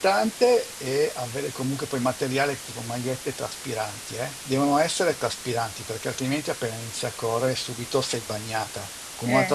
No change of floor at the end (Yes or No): Yes